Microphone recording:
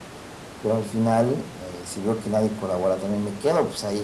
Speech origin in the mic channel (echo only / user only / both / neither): echo only